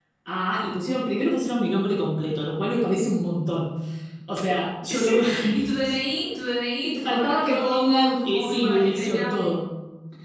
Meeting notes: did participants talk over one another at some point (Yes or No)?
Yes